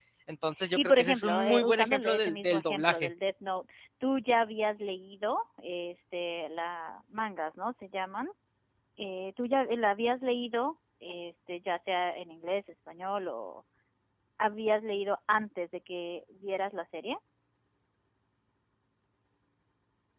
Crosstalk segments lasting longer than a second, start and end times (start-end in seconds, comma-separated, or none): 0.8-3.1